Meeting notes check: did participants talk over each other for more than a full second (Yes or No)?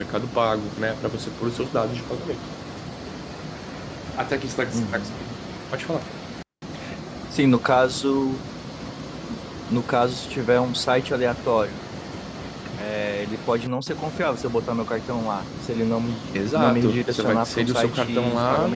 Yes